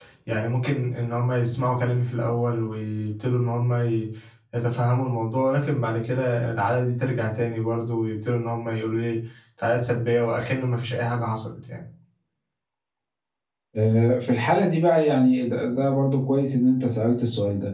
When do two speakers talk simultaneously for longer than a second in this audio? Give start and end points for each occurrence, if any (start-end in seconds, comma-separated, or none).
none